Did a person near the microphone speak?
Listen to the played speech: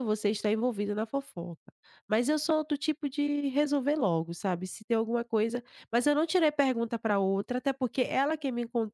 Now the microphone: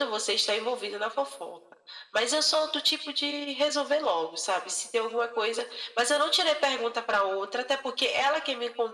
No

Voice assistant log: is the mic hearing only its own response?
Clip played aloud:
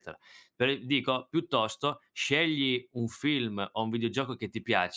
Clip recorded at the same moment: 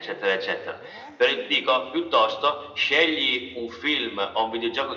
Yes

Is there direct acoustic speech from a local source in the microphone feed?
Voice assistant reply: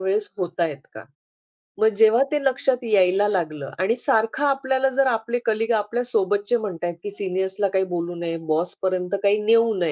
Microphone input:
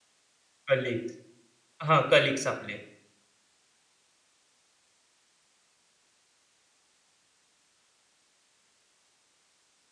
Yes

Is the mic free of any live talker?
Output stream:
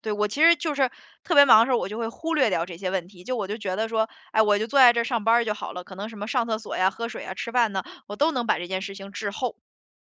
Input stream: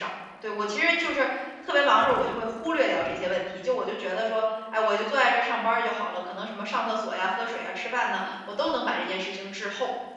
Yes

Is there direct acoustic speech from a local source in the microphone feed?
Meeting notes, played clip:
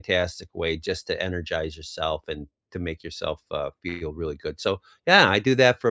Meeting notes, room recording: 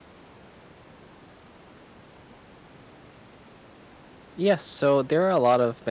Yes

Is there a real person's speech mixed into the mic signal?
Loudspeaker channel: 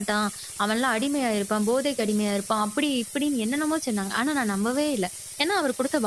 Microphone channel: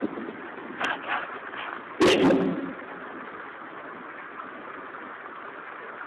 Yes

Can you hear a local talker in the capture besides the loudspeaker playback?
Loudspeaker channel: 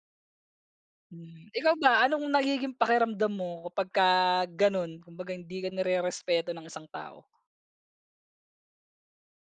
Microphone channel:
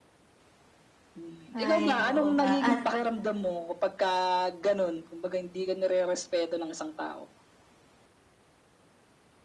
Yes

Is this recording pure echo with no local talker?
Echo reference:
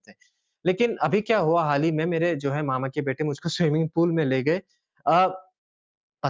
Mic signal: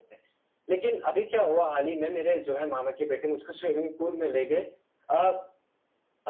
Yes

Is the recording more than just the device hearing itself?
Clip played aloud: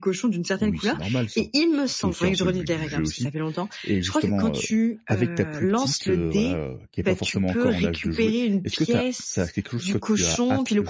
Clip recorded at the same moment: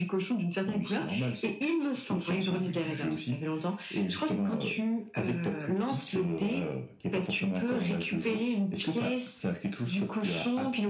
No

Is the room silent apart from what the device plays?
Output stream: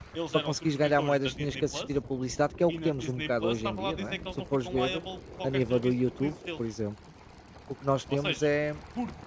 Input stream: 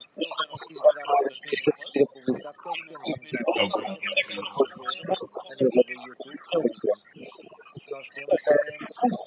No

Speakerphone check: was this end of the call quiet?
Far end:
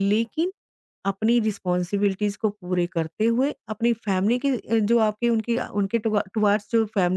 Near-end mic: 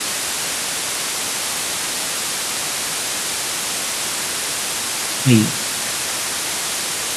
No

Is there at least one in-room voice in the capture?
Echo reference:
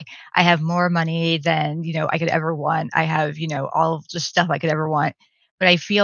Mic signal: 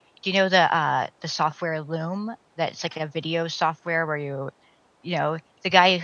Yes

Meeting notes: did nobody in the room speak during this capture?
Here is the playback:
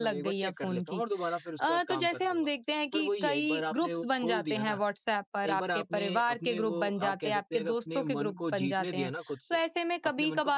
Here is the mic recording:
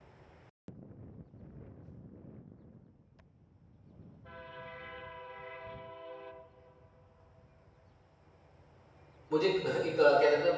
No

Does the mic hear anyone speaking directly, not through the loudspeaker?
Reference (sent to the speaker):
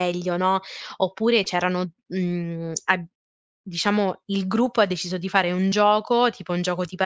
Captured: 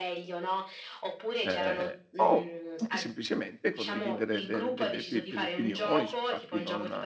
Yes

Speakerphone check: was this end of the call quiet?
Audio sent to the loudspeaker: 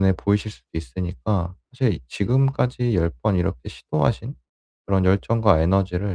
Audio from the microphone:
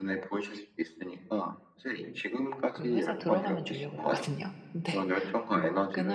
No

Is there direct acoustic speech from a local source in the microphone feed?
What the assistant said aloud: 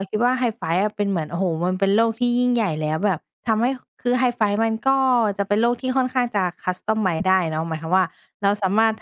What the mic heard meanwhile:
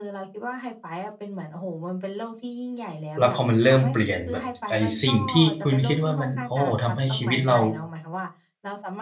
Yes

